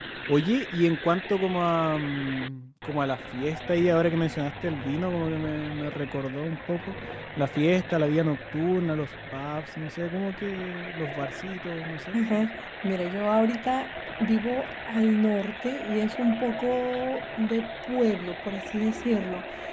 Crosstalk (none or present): none